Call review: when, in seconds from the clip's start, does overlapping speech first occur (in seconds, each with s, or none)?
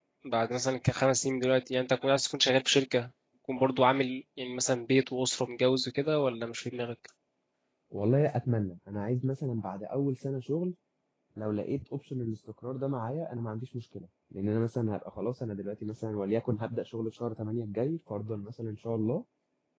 none